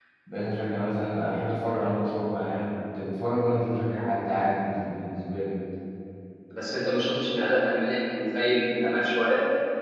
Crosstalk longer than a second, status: none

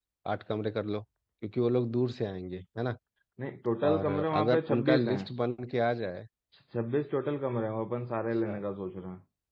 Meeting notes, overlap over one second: present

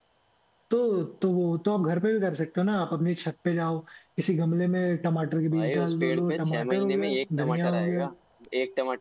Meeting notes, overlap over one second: present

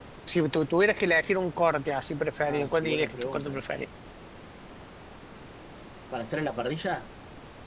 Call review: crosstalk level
present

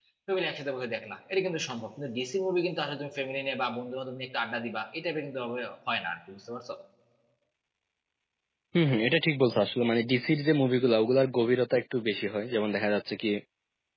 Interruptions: none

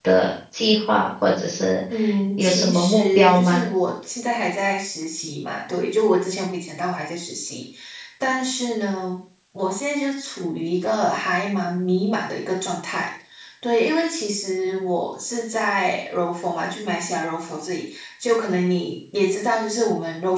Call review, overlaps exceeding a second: present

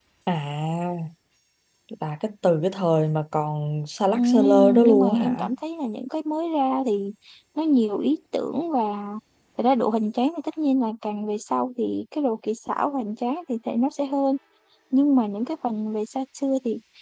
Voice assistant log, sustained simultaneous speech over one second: present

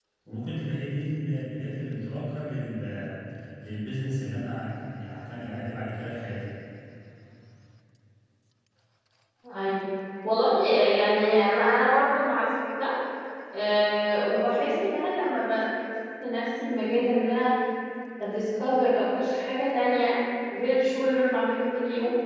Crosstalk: none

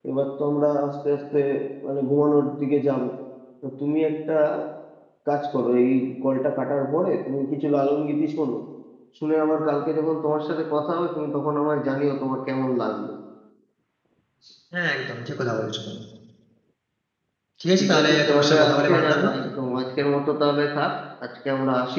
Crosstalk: present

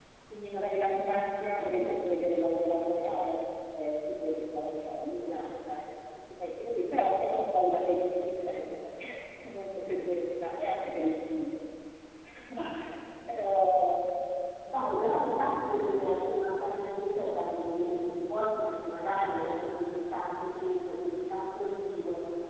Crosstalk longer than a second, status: none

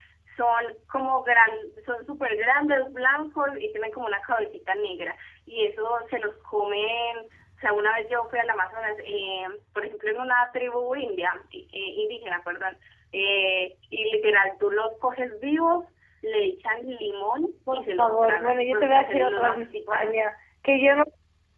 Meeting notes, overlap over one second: present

